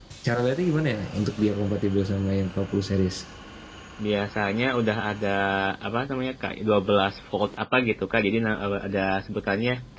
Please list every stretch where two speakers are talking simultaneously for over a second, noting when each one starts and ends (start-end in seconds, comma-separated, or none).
none